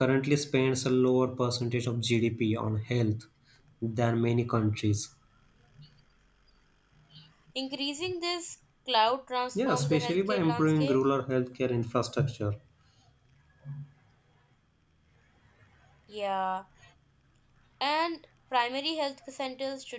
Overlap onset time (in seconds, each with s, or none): 9.6 s